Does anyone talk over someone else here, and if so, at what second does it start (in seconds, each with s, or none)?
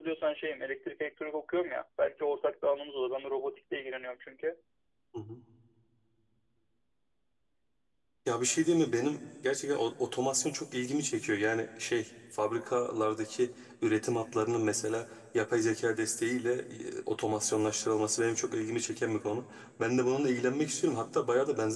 none